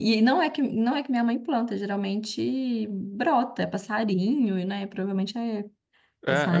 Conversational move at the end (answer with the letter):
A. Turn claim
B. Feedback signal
A